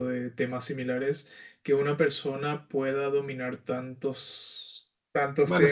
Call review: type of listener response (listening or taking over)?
listening